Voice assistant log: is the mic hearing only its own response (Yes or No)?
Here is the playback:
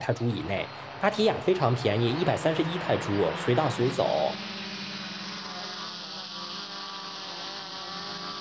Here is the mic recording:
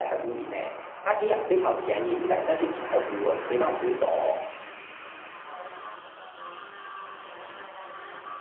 Yes